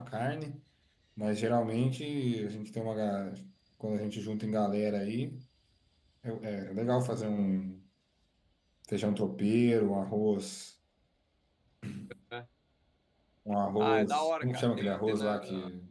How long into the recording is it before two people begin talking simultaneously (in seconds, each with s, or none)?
13.8 s